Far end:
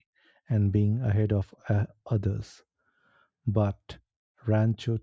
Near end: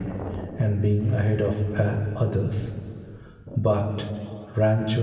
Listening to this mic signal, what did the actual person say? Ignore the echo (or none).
none